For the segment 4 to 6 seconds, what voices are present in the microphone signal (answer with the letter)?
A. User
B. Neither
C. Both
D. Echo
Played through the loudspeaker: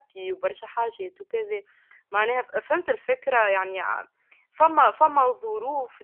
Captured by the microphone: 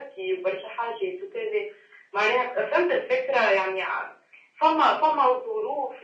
D